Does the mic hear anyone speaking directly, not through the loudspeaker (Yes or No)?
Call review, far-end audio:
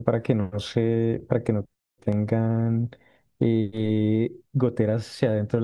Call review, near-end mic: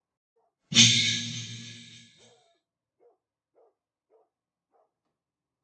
Yes